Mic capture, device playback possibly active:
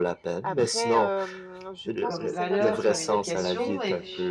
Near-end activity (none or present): present